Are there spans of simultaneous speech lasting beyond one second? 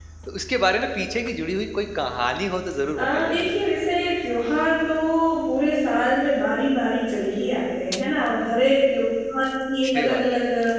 No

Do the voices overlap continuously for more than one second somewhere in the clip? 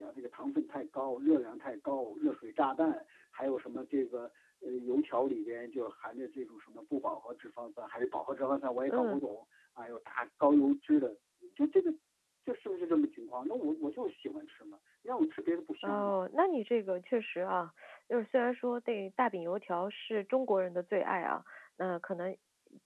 No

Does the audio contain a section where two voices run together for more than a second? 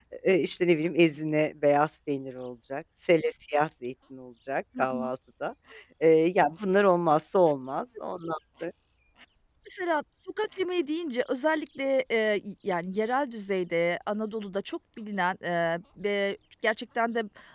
No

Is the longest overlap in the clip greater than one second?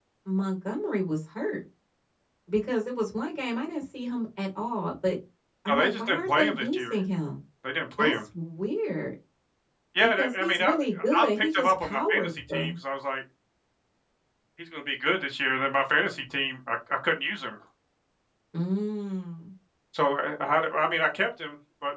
Yes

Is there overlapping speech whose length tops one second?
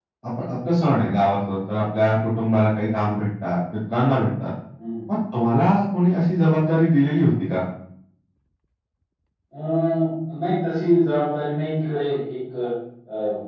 No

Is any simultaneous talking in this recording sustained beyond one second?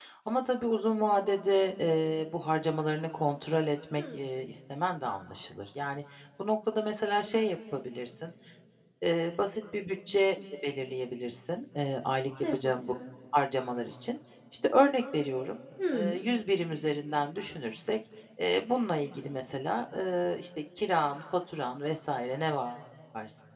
No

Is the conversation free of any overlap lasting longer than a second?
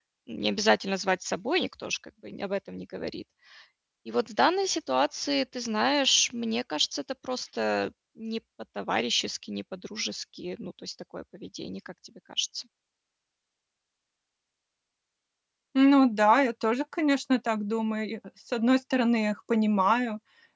Yes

